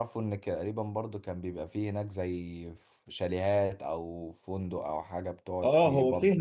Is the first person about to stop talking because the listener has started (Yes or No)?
Yes